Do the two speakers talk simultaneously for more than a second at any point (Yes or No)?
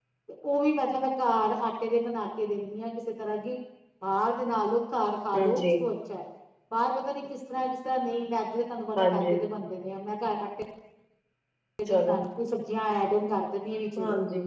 No